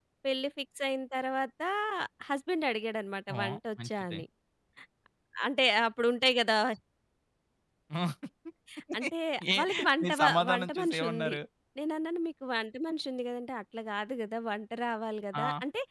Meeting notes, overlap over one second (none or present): present